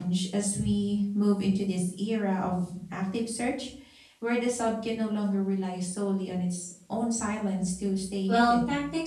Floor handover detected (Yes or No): Yes